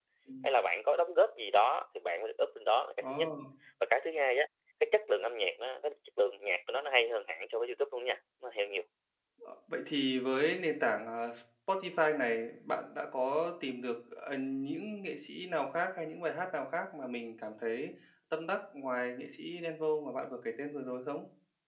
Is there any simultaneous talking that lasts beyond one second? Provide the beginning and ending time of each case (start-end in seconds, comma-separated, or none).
none